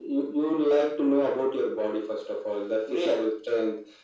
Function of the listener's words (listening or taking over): listening